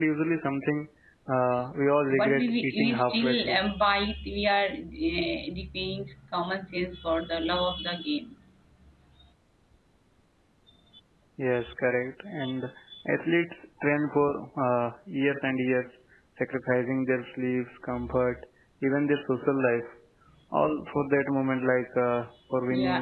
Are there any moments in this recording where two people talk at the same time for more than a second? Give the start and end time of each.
2.2-3.6

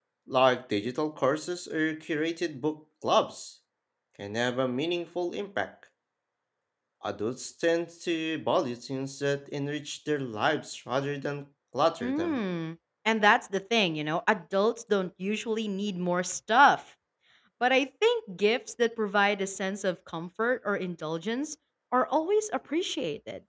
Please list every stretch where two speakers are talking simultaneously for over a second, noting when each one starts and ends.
none

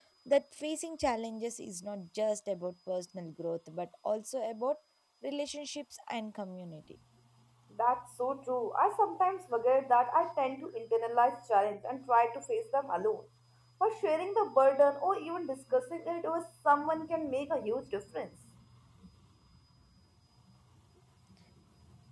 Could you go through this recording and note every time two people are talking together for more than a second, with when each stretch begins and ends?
none

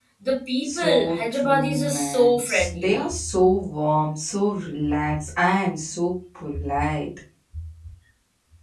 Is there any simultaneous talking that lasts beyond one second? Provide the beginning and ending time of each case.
0.6-3.1

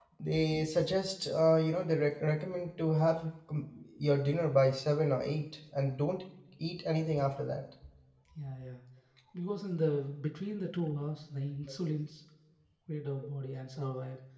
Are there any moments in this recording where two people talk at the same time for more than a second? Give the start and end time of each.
none

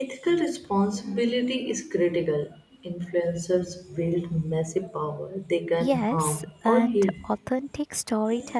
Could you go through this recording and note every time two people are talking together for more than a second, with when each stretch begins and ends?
5.8-7.1

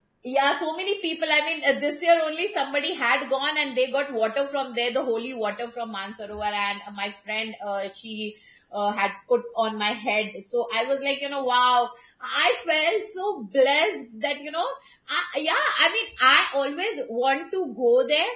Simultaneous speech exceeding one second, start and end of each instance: none

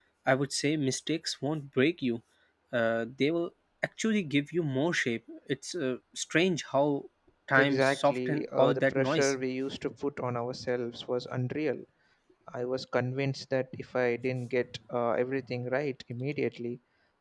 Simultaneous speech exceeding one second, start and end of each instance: 7.6-9.3

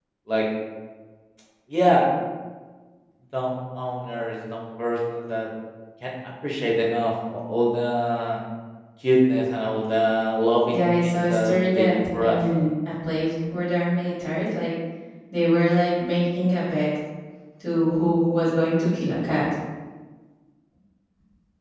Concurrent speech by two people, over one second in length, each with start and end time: 10.7-12.4

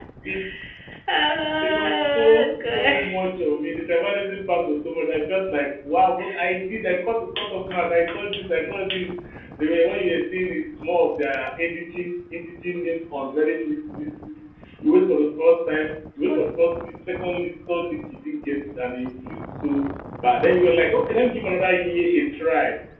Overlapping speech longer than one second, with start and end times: 1.6-3.0

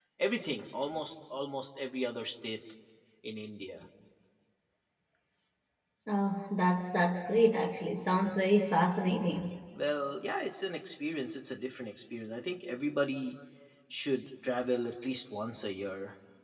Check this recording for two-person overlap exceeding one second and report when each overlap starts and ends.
none

